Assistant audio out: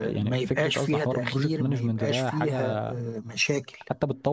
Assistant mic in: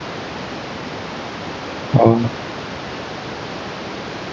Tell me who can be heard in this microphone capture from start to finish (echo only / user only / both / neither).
user only